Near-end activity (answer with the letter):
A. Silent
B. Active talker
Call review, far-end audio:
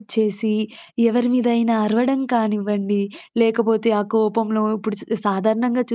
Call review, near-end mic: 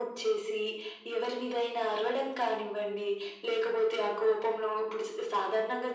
A